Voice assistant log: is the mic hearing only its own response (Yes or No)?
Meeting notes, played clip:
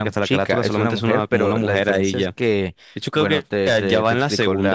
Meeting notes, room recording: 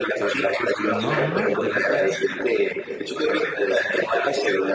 No